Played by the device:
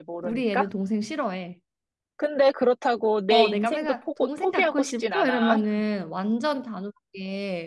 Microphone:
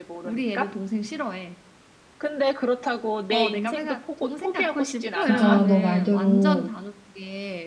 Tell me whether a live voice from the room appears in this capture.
Yes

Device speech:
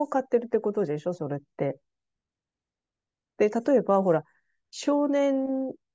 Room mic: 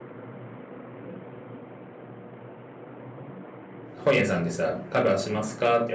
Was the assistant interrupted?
Yes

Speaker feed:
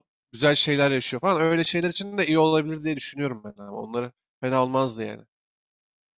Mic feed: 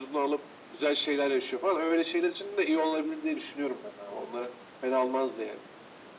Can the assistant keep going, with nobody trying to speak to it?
Yes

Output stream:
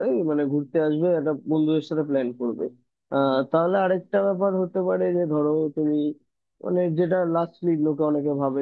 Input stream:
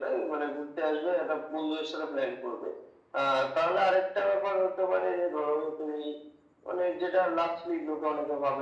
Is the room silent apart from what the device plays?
Yes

